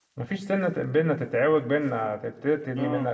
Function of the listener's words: listening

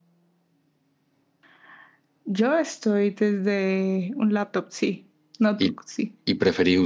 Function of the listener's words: taking over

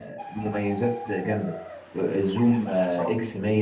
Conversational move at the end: listening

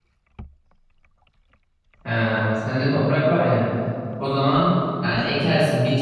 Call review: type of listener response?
listening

